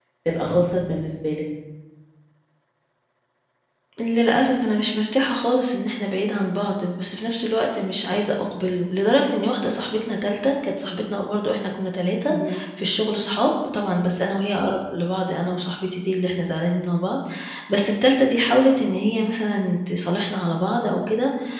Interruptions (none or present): none